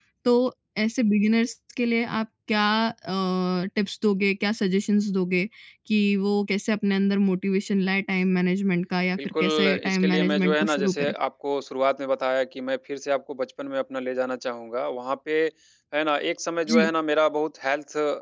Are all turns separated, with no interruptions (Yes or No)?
No